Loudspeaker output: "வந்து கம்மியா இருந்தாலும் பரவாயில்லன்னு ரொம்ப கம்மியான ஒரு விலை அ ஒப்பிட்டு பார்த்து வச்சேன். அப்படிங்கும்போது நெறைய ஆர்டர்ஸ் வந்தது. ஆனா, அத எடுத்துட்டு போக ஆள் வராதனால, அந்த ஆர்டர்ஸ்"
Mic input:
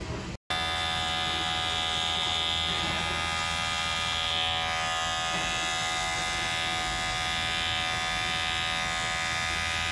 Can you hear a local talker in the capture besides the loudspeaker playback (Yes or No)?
No